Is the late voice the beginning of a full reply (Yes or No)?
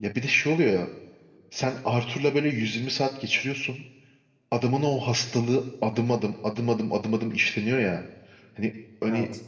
No